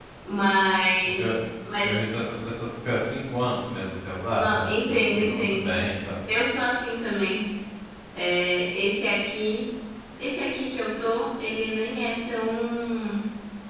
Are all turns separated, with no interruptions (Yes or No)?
No